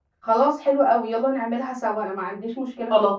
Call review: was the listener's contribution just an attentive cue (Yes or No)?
No